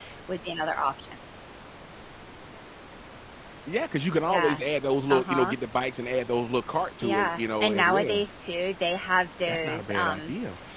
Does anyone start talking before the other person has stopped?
Yes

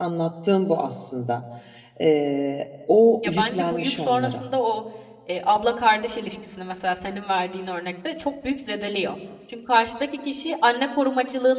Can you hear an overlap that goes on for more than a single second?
Yes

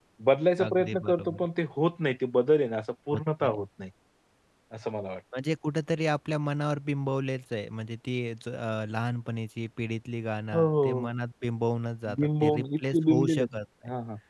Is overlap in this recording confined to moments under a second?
No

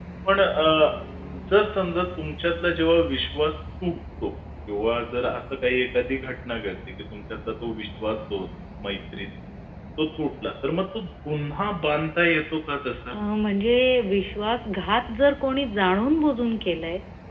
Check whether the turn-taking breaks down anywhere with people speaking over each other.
No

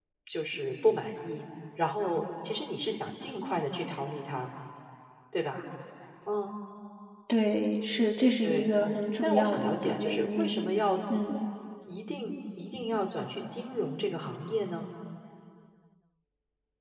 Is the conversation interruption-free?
No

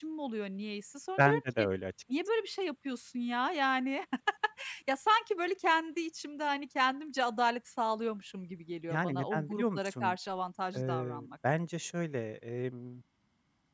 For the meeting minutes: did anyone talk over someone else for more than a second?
Yes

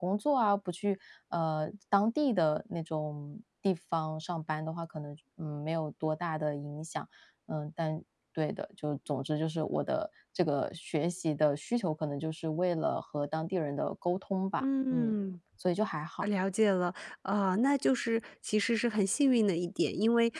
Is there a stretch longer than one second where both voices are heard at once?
No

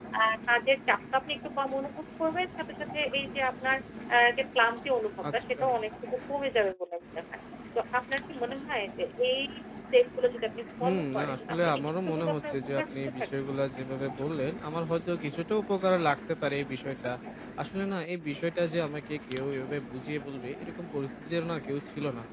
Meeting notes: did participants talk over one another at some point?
Yes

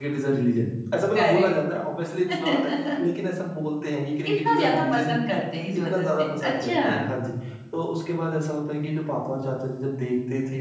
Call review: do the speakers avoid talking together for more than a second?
No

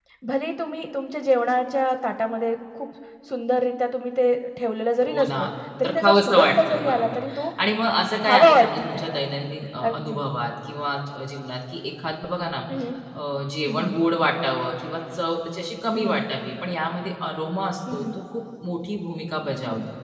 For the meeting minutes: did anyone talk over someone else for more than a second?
Yes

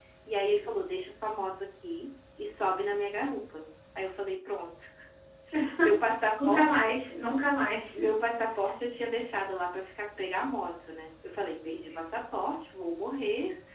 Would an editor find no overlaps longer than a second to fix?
Yes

